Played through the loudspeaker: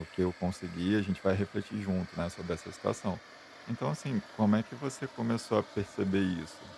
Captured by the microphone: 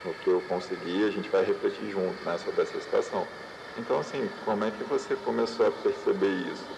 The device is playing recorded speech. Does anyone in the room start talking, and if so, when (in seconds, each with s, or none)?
none